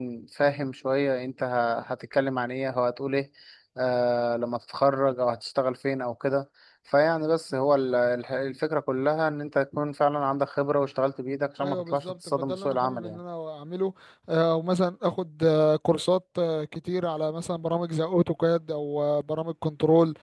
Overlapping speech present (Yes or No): Yes